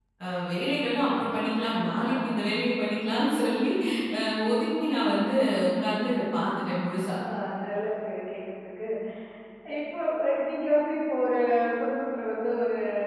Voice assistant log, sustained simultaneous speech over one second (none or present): none